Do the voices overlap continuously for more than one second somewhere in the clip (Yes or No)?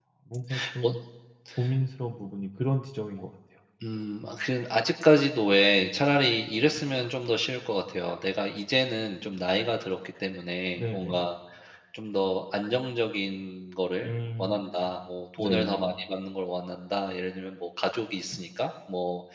No